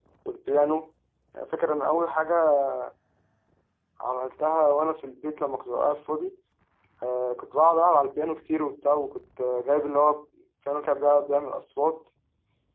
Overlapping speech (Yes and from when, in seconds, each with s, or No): No